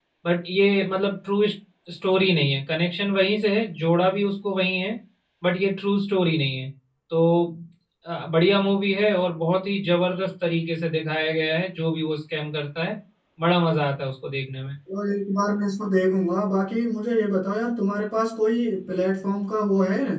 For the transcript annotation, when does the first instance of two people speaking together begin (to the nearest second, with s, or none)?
none